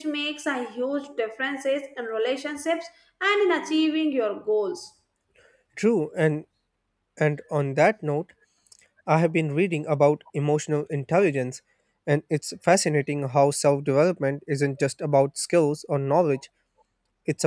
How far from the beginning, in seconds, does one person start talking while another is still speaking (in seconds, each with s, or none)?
none